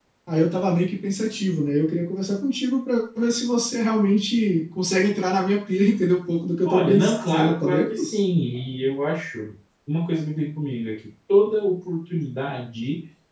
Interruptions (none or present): present